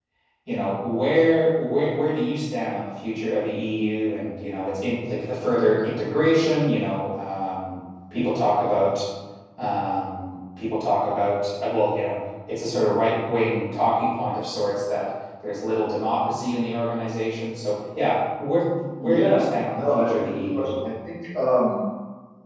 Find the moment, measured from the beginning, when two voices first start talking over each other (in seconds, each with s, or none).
19.0 s